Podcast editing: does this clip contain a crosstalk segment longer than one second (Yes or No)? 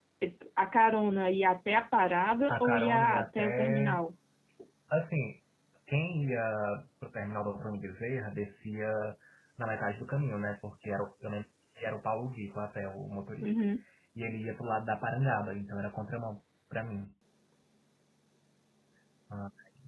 Yes